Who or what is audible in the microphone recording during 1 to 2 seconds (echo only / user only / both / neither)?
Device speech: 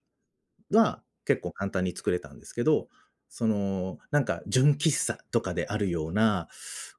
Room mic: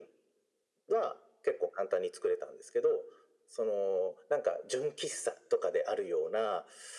echo only